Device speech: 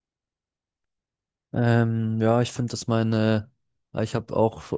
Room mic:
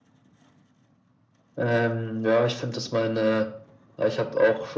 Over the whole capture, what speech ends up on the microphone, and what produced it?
echo only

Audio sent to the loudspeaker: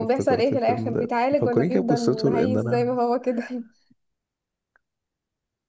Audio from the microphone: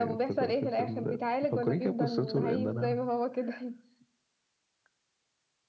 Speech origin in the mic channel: echo only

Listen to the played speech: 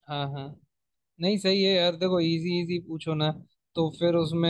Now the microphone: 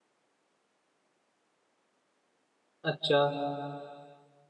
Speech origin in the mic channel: user only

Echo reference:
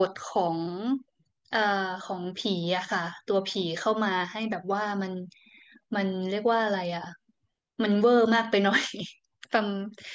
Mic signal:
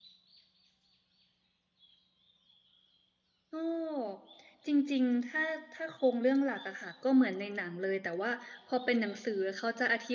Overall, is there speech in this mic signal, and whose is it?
user only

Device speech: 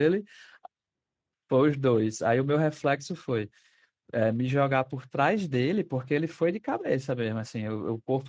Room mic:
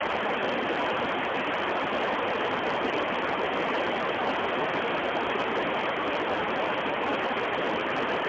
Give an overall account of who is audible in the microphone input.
neither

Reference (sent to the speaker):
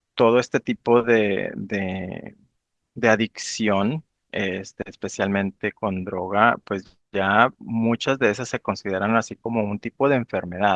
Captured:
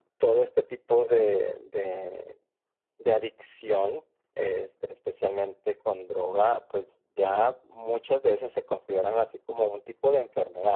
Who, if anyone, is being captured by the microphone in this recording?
echo only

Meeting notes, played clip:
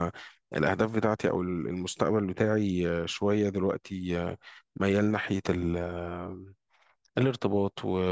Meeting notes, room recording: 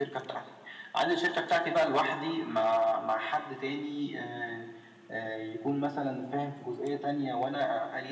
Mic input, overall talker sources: user only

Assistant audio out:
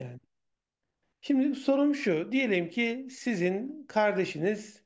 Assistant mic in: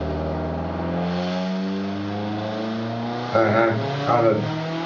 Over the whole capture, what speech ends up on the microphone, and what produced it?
user only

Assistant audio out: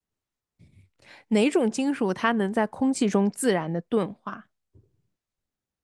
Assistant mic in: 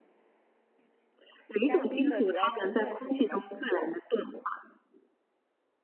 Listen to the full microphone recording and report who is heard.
both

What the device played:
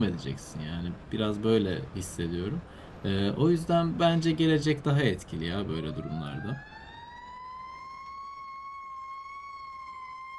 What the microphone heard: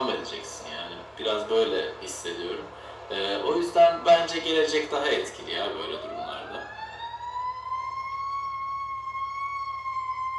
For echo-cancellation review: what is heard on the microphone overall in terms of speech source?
echo only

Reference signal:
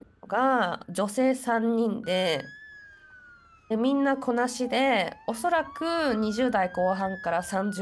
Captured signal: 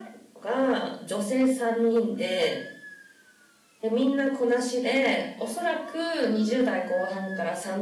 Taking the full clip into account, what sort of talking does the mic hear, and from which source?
echo only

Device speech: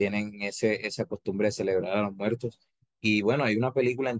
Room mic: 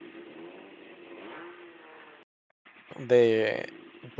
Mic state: user only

